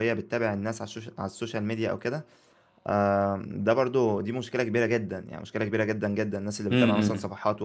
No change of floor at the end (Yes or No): Yes